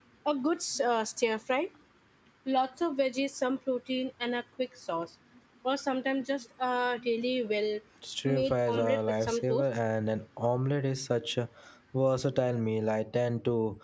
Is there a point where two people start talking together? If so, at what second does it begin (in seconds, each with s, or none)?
8.3 s